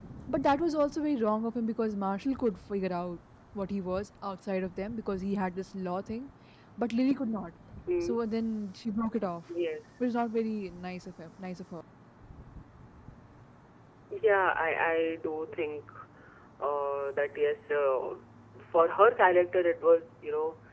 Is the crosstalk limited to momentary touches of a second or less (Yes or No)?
Yes